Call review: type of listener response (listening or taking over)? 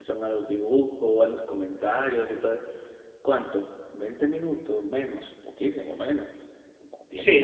taking over